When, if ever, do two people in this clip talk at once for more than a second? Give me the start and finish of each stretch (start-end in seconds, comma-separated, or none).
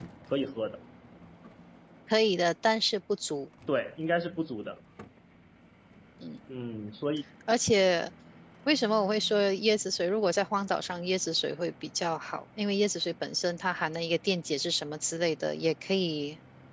none